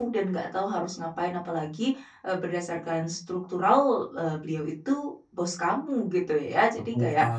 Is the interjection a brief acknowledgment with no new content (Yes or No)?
Yes